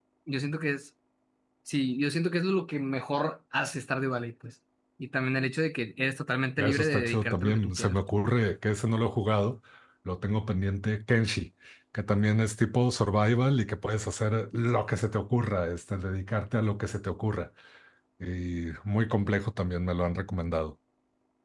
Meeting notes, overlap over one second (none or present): present